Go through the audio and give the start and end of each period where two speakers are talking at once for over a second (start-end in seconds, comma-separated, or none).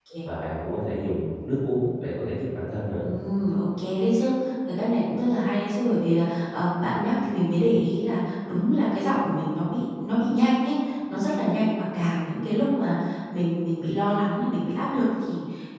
none